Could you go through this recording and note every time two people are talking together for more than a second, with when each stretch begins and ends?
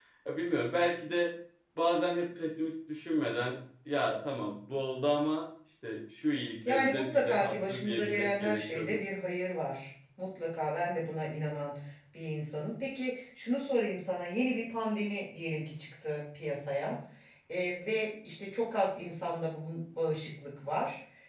6.6-9.0

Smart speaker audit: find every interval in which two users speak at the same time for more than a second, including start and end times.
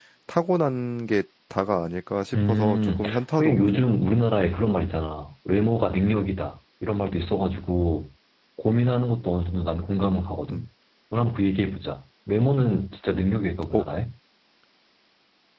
2.4-3.8

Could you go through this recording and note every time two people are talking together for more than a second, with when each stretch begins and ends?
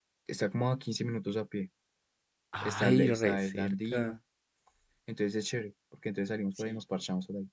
2.6-4.0

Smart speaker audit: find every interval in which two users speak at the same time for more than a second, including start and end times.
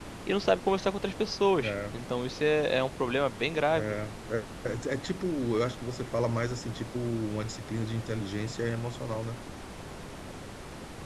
none

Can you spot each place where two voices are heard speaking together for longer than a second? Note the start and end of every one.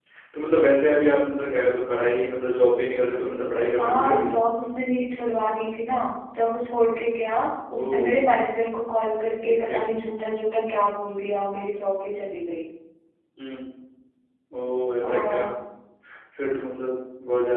none

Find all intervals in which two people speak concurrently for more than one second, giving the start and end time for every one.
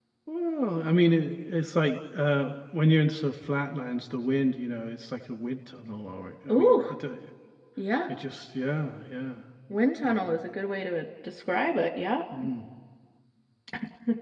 none

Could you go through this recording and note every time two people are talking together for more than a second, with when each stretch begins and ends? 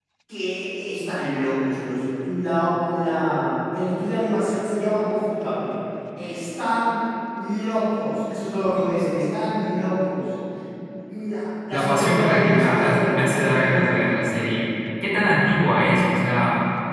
11.7-14.1

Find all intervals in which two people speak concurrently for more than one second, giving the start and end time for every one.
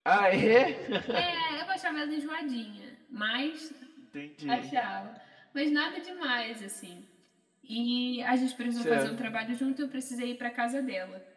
none

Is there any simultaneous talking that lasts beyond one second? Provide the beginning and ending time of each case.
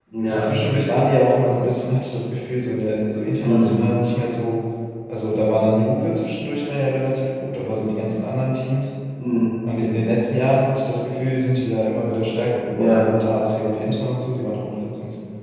none

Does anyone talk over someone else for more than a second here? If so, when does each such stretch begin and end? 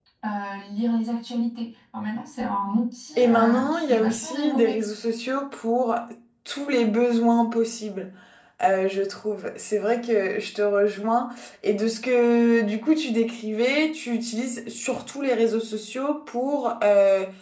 3.2-4.8

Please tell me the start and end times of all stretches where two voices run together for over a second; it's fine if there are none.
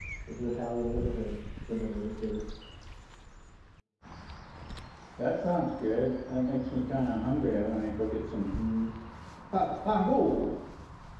none

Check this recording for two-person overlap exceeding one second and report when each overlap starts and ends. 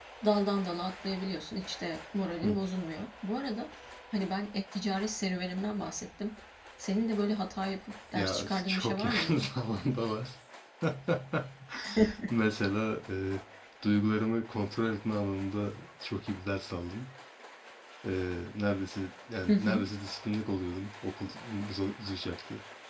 8.1-9.5

